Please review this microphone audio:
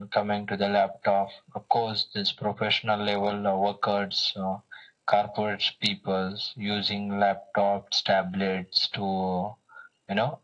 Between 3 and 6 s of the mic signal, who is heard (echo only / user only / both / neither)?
echo only